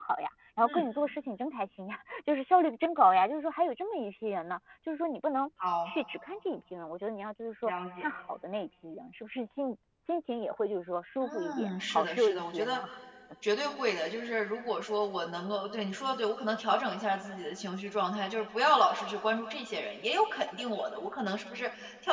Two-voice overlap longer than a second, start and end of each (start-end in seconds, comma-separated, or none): 11.2-12.8